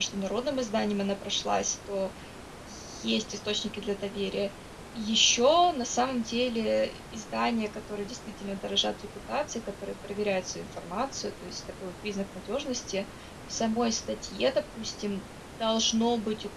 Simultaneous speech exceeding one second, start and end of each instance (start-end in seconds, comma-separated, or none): none